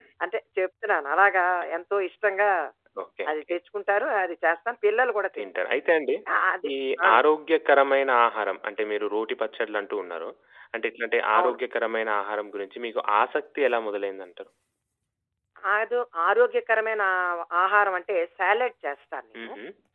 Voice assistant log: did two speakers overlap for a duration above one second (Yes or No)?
No